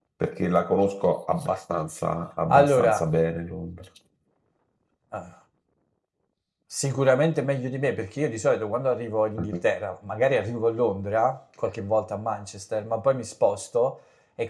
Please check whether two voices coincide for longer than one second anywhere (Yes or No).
No